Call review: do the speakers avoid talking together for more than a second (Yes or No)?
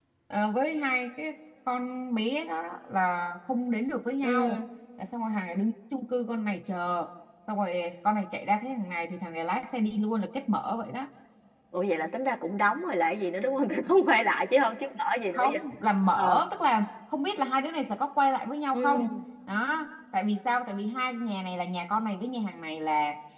Yes